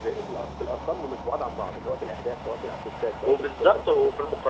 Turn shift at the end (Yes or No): Yes